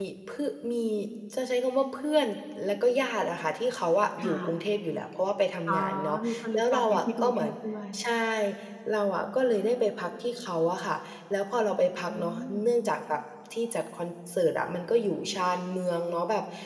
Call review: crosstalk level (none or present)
present